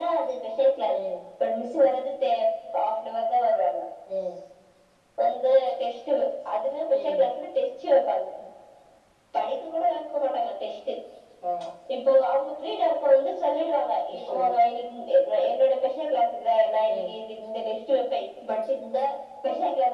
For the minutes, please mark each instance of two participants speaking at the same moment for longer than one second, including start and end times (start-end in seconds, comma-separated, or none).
none